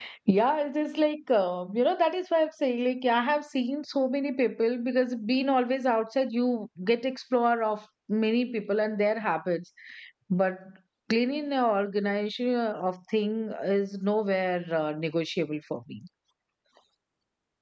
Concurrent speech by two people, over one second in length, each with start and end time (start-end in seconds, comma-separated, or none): none